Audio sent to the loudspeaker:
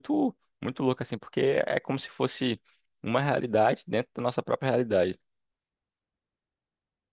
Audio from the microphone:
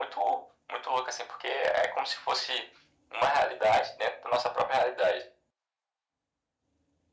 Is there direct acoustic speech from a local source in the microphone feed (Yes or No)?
No